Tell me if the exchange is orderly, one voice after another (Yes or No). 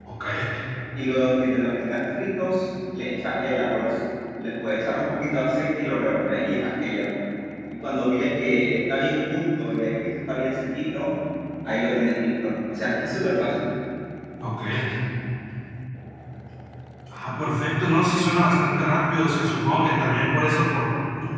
Yes